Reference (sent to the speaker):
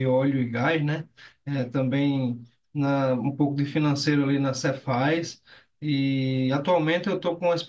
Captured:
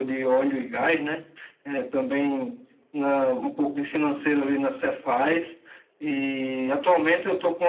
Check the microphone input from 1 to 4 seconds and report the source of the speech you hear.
echo only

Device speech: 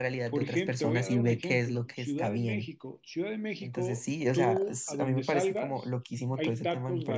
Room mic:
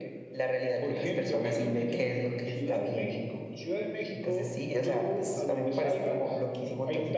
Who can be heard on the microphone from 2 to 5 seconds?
echo only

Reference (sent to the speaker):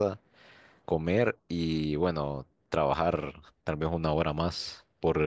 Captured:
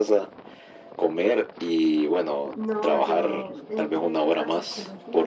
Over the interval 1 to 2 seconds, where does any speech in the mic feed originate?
echo only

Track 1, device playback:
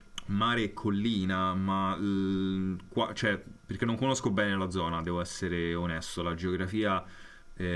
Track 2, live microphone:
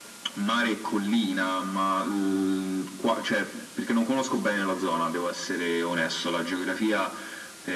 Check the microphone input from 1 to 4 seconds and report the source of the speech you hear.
echo only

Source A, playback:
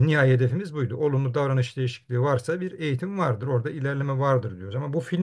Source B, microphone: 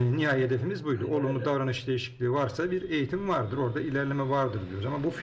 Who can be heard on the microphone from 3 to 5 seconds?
echo only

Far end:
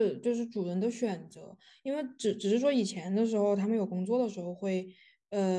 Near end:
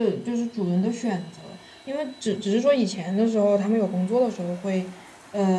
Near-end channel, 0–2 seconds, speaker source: echo only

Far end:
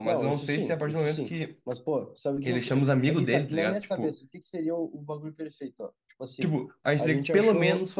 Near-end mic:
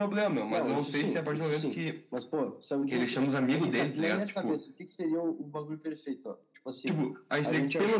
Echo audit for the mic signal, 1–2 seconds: echo only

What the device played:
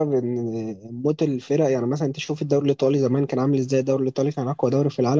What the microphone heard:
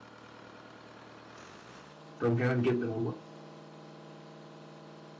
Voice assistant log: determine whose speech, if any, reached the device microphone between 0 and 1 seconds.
neither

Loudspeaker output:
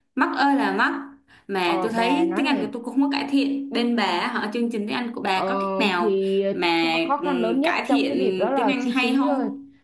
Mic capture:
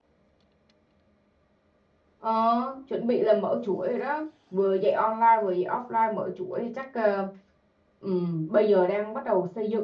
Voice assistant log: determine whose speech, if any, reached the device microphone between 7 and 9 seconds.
user only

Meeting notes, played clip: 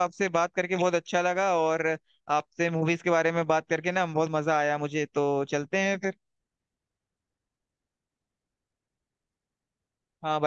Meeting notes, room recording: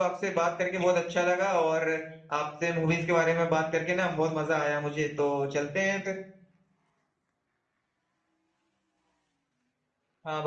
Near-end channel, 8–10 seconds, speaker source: neither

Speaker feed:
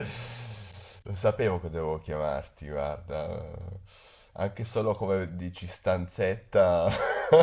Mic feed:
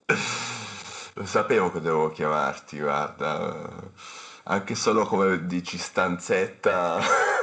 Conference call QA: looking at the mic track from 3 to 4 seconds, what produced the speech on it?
echo only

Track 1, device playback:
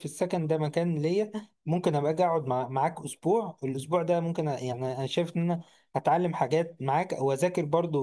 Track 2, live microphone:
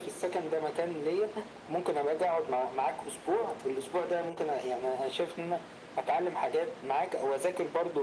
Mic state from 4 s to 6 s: echo only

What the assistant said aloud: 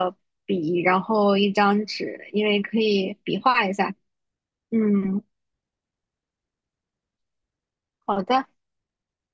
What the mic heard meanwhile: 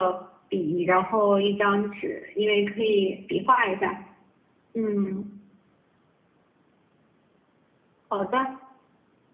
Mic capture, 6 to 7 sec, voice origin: neither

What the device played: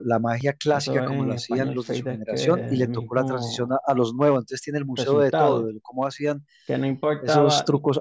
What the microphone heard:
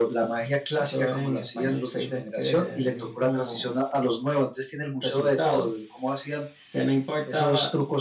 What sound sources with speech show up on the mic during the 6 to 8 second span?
echo only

